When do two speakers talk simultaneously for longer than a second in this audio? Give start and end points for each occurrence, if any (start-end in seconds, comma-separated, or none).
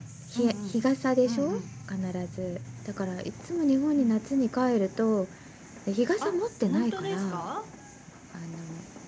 6.2-7.5